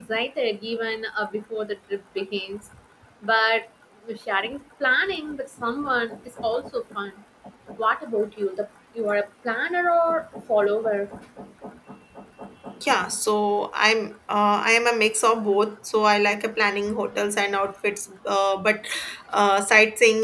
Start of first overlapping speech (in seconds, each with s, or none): none